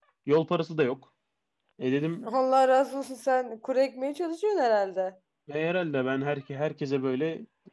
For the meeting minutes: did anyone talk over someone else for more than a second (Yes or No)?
No